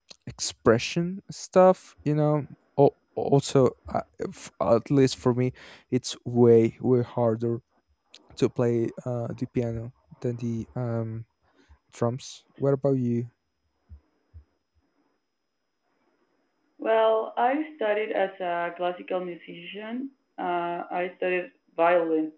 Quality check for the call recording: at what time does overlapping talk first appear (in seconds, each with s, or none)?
none